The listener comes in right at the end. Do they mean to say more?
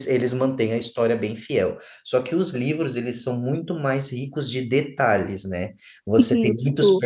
No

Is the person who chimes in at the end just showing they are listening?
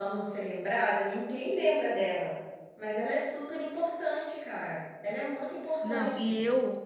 No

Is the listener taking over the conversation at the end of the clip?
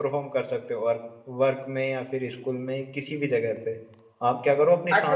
Yes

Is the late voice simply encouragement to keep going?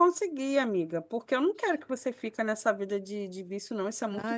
No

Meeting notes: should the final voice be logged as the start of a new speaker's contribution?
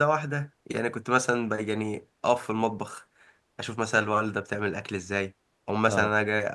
No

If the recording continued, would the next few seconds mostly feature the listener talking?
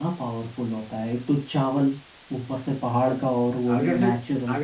Yes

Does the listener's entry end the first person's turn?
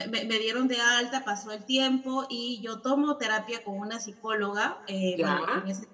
No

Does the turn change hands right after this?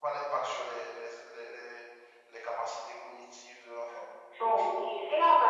Yes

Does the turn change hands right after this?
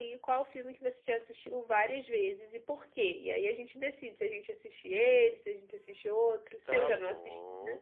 Yes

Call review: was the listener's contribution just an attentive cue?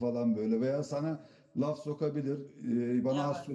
Yes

